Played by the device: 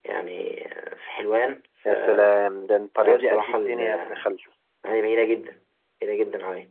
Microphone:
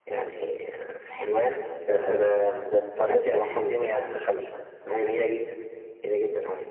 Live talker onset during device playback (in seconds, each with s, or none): none